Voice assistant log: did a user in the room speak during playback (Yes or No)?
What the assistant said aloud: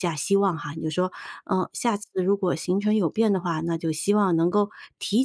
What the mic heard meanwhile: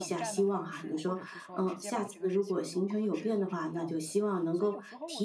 Yes